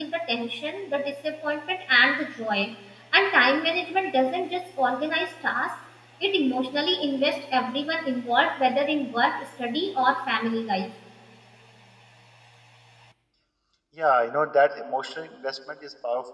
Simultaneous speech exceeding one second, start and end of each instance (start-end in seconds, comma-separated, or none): none